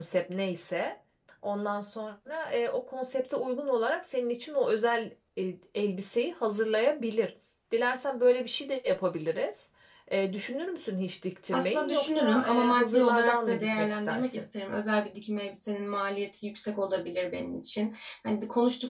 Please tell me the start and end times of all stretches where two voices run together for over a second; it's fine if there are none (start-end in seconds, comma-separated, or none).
11.5-14.4